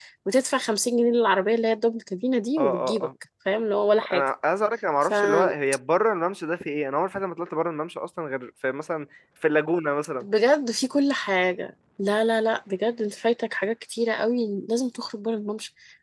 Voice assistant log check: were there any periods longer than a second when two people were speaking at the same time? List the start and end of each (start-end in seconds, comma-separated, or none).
none